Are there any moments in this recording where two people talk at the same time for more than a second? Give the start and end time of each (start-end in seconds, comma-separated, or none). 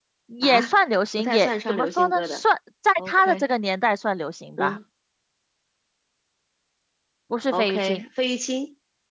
1.2-2.4